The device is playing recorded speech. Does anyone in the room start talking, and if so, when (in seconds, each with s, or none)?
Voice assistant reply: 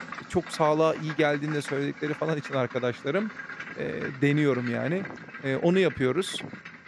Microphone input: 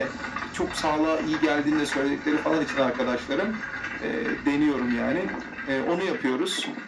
none